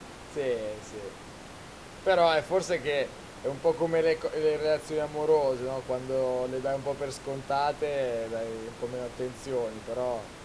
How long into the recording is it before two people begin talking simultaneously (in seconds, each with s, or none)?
none